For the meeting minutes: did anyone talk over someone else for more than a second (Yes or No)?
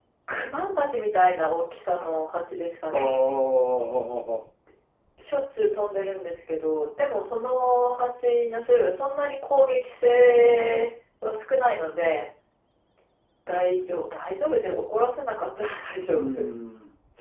No